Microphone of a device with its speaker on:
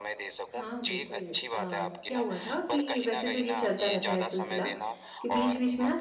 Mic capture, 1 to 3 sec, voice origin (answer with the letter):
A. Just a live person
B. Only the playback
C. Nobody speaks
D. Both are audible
D